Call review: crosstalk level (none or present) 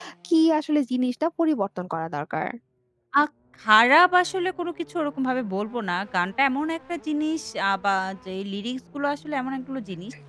none